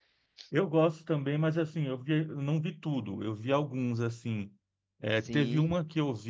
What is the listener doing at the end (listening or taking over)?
listening